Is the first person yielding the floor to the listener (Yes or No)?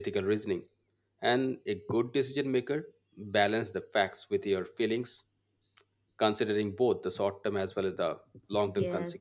Yes